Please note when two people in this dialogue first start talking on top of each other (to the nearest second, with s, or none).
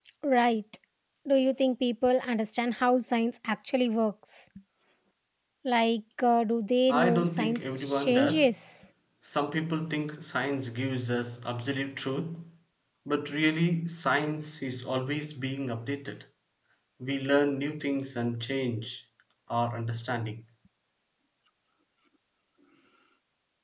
7 s